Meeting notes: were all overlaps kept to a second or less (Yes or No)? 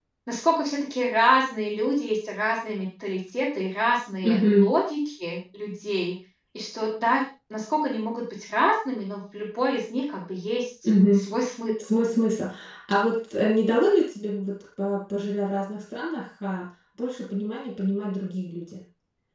Yes